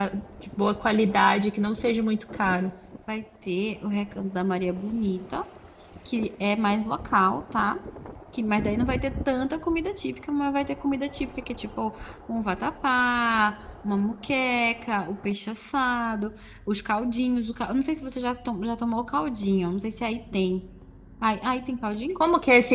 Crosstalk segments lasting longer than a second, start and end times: none

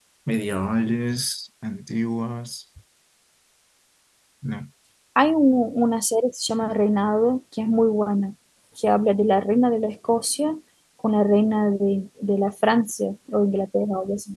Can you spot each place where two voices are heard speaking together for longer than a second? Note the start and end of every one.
none

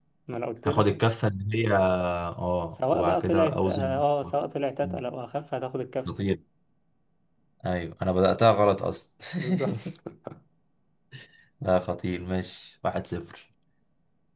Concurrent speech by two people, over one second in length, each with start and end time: 2.7-3.9

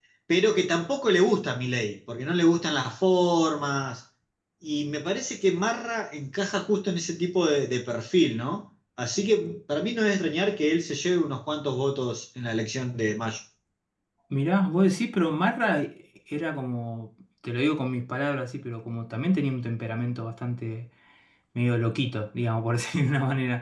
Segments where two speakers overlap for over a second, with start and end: none

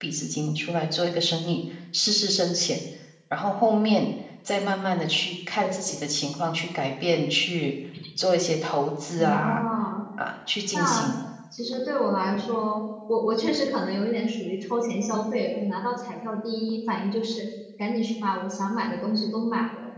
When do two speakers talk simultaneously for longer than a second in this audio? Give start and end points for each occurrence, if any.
none

